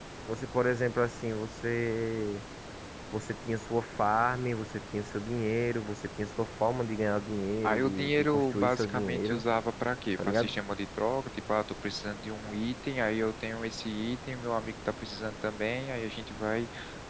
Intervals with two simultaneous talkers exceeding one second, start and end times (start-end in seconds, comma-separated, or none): 7.6-9.4